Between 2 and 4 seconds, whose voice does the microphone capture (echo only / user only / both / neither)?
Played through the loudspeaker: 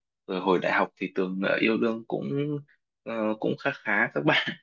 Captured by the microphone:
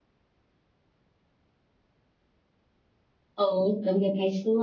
user only